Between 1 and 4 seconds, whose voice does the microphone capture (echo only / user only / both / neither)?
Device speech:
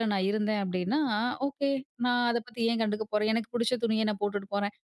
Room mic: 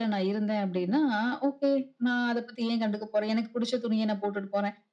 echo only